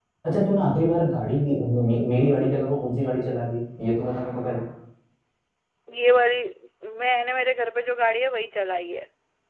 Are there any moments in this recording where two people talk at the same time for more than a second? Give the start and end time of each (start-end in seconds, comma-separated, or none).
none